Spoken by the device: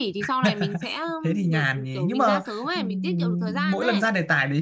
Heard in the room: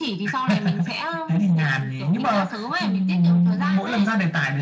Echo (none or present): present